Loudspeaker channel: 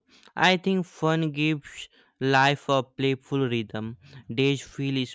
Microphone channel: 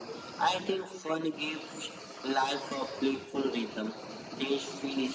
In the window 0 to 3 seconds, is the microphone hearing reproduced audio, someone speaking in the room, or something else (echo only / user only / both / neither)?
echo only